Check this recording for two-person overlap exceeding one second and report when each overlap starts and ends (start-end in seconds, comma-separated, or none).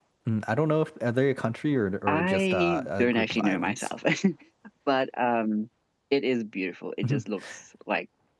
2.1-3.9